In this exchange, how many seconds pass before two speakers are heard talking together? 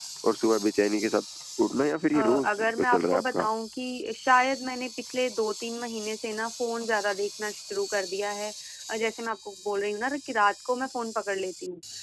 2.1 s

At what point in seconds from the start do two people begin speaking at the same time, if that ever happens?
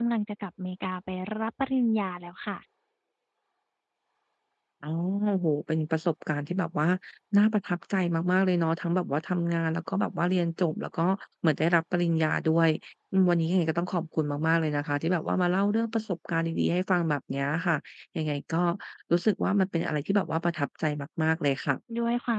none

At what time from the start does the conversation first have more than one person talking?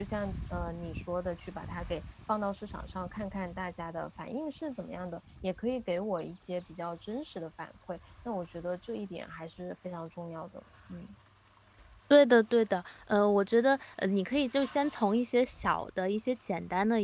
none

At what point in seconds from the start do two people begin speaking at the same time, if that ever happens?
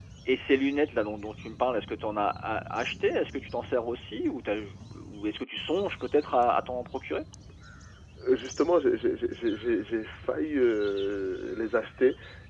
none

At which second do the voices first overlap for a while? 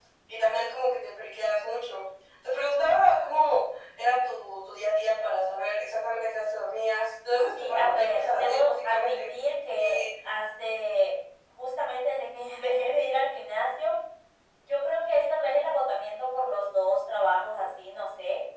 7.3 s

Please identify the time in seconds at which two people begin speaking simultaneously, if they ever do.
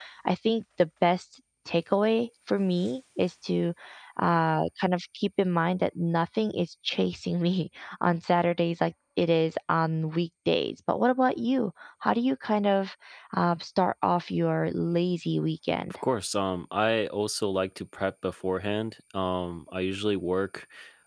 none

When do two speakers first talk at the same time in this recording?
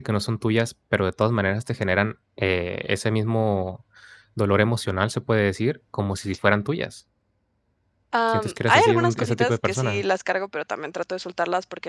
8.3 s

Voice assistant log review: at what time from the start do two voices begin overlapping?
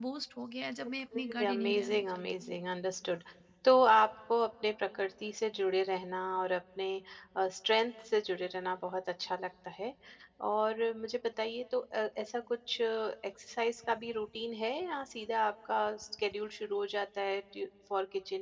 0.9 s

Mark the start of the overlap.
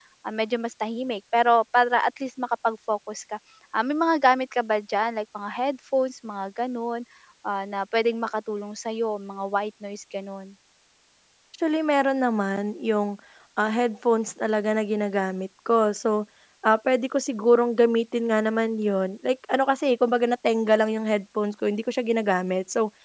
none

